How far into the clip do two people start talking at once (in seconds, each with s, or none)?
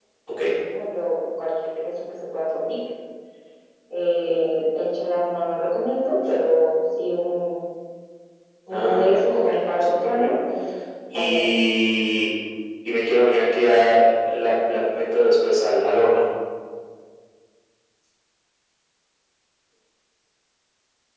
8.7 s